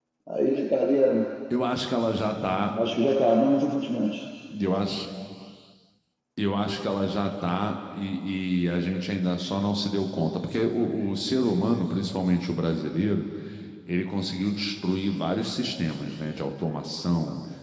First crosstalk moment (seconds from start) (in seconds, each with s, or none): none